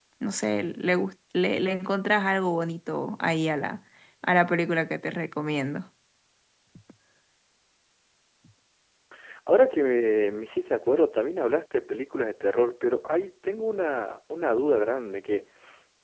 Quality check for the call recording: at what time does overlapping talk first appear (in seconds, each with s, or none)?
none